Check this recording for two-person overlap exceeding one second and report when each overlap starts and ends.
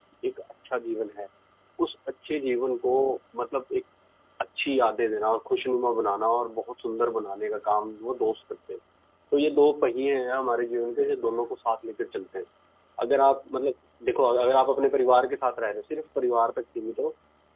none

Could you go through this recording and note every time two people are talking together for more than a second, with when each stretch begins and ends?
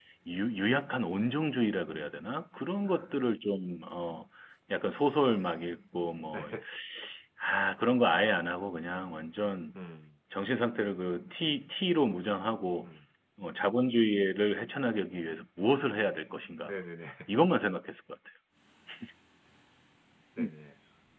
none

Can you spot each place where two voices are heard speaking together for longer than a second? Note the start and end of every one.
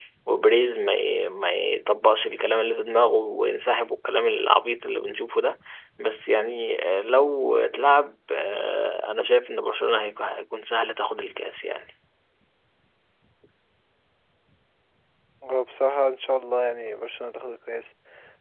none

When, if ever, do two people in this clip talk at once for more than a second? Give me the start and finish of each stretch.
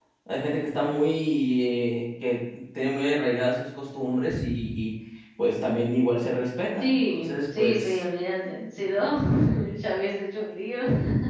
6.8-8.0

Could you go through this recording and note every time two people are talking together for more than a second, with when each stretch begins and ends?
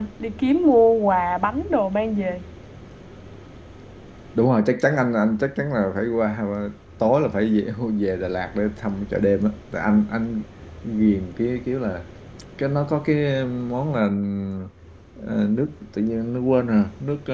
none

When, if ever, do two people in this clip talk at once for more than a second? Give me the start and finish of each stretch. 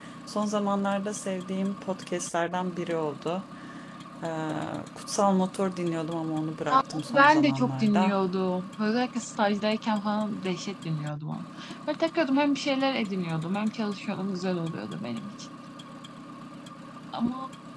6.7-8.2

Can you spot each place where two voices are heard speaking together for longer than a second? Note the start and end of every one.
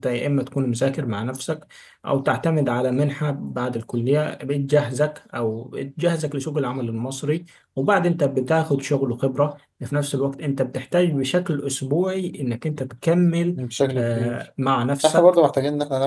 none

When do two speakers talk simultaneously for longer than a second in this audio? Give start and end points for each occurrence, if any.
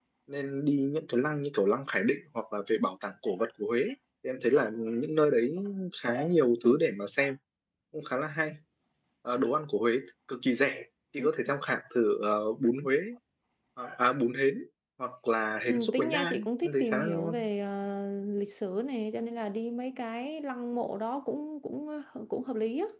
15.7-17.4

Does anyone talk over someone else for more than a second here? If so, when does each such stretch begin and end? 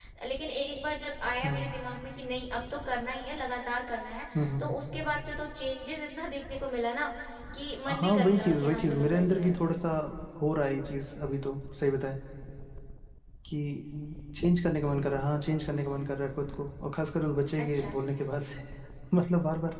8.0-9.5

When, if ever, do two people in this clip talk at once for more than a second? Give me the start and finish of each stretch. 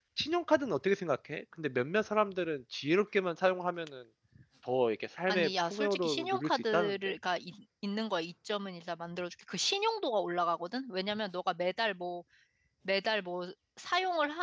5.3-7.1

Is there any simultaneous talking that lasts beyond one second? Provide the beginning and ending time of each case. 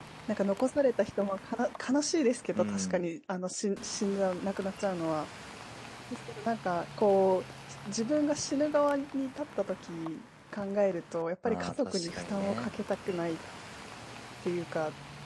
11.4-12.7

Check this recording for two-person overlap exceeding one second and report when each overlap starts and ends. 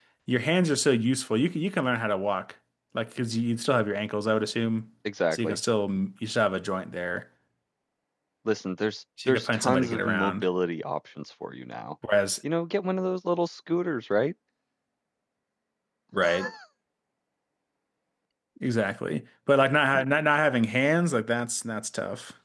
9.3-10.5

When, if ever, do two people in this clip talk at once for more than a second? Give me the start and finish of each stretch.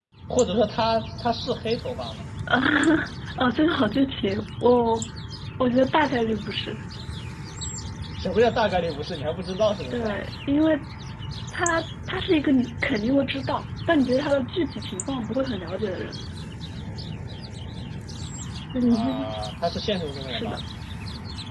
none

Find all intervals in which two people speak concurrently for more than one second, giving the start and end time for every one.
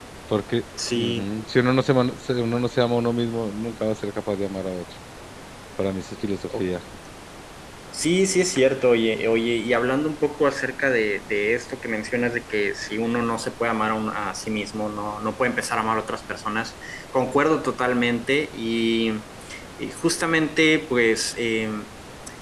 none

